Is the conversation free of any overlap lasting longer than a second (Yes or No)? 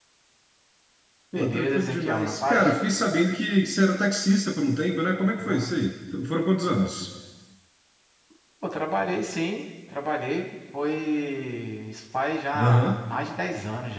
No